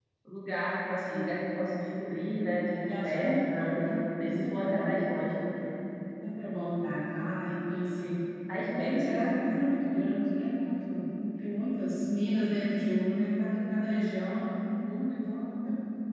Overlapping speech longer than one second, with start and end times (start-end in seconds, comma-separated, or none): 2.8-5.0